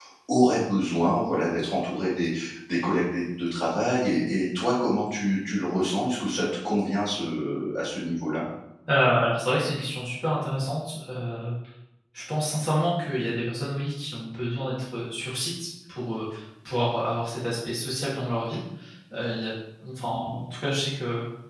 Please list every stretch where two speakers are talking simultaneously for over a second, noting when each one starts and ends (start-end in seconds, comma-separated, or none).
none